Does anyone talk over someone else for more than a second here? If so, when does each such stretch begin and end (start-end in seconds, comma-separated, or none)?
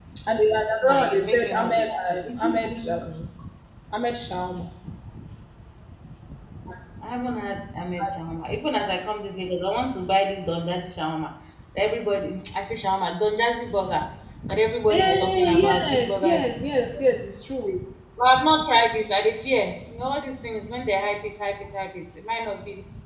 0.8-2.9, 14.9-16.4